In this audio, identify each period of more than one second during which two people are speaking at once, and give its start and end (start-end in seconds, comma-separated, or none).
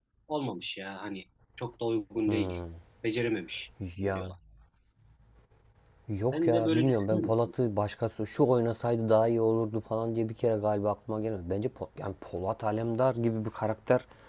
6.3-7.5